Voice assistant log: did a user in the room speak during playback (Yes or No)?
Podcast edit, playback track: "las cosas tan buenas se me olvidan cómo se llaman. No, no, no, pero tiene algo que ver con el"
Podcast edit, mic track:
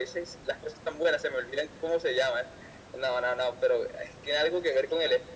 No